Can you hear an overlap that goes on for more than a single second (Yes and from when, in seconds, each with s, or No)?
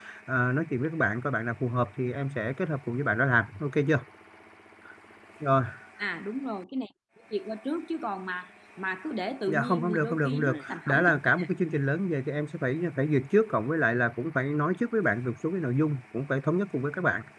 Yes, from 9.5 s